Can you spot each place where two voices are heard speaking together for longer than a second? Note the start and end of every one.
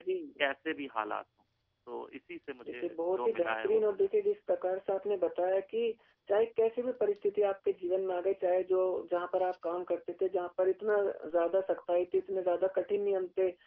2.7-4.1

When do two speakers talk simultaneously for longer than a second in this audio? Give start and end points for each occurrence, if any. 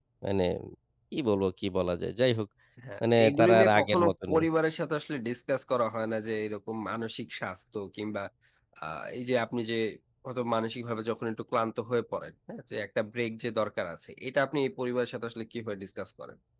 3.2-4.4

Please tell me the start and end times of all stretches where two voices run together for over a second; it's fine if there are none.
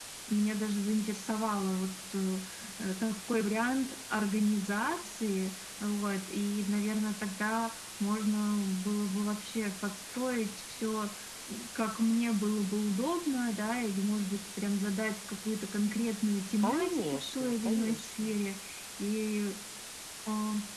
16.6-18.4

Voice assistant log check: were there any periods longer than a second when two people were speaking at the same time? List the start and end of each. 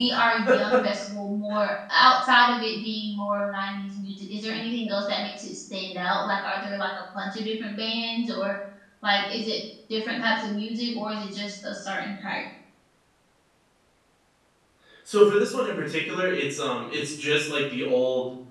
none

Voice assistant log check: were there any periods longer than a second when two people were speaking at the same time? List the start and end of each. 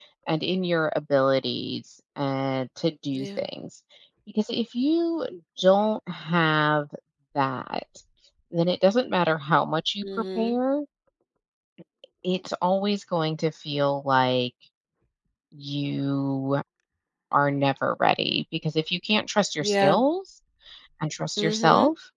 none

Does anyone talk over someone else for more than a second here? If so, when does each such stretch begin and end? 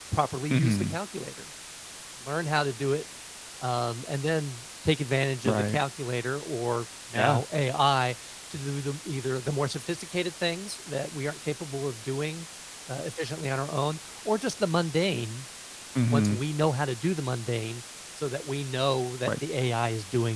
none

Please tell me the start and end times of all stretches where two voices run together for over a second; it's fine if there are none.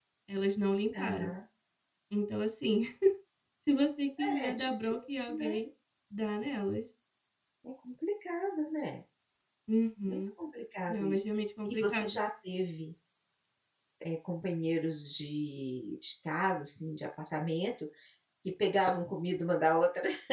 4.2-5.6

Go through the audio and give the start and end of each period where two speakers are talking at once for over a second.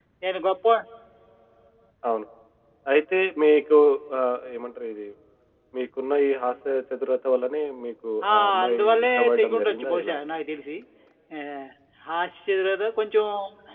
8.3-10.2

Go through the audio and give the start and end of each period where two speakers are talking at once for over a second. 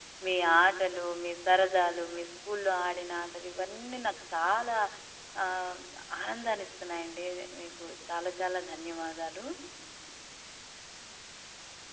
none

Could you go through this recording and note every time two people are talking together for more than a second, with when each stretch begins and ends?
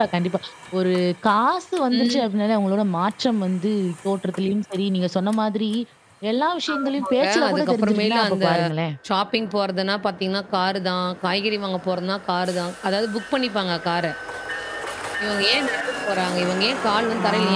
6.8-8.5

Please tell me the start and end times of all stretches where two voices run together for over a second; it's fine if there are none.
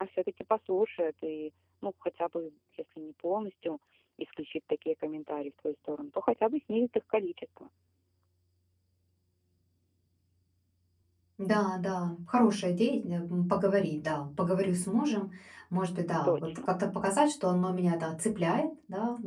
none

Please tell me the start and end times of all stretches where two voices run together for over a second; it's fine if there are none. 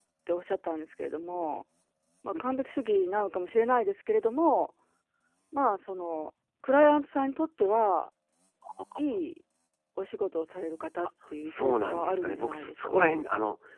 11.5-13.2

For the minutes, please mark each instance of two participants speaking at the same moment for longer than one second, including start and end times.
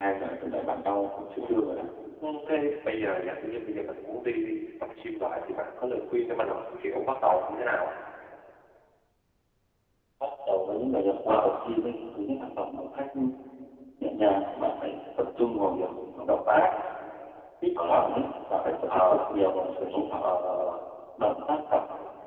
none

